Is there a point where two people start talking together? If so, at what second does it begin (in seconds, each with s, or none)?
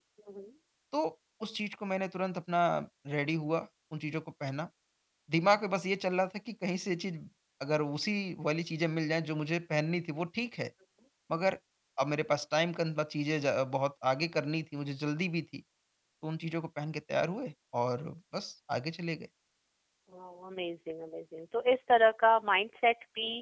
none